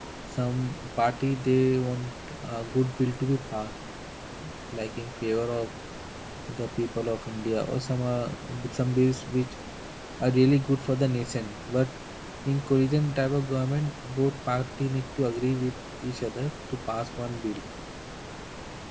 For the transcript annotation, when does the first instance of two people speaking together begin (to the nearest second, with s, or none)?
none